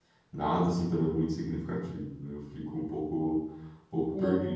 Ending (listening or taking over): listening